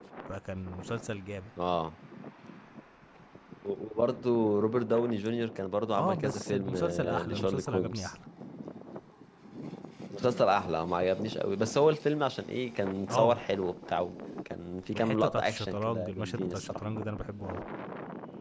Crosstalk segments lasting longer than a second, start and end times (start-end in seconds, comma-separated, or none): 6.0-8.1, 14.9-16.8